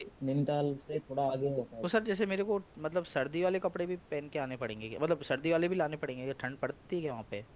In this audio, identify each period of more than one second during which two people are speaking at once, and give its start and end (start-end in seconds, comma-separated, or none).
none